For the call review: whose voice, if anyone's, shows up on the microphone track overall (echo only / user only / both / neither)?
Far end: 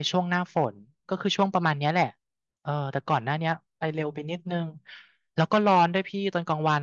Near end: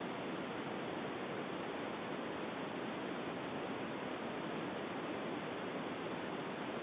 neither